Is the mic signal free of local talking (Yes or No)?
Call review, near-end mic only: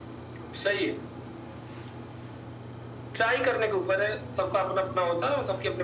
Yes